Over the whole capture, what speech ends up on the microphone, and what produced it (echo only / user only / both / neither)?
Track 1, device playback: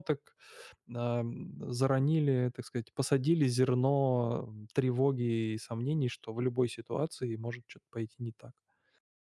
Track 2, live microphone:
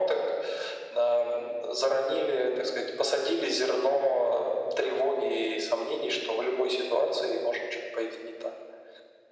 echo only